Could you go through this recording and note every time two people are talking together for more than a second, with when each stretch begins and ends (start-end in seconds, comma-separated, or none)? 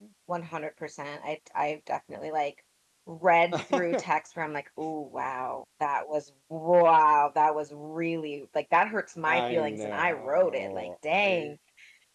9.2-11.5